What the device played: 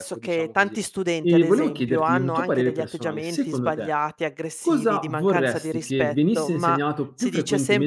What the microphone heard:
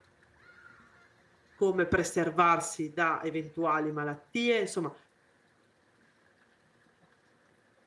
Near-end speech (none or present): present